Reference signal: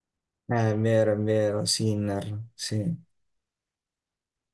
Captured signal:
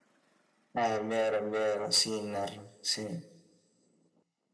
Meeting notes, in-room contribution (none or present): none